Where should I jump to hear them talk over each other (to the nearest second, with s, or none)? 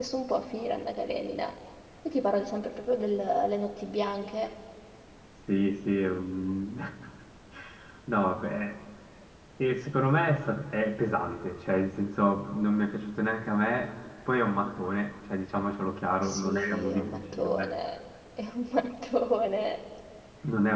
16 s